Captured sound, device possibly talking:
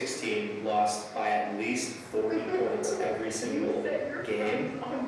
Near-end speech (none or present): none